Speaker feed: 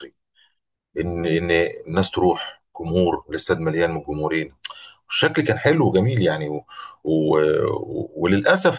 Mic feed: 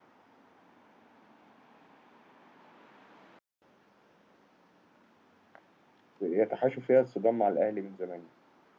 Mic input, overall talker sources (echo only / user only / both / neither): user only